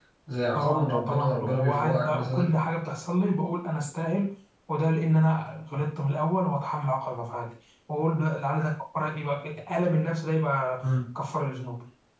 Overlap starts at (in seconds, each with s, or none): 0.5 s